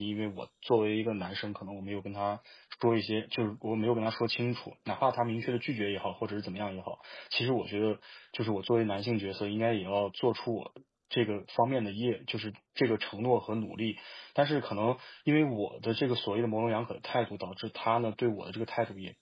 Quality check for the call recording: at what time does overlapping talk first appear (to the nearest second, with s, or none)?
none